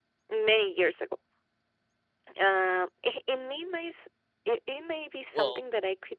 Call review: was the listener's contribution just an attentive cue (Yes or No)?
Yes